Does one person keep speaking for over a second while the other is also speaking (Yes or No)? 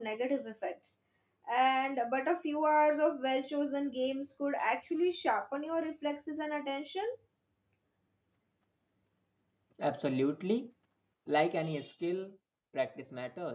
No